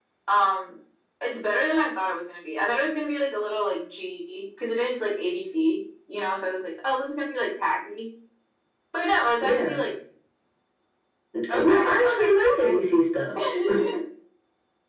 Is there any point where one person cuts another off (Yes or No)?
Yes